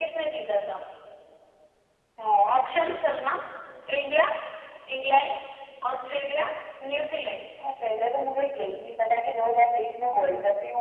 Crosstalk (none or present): none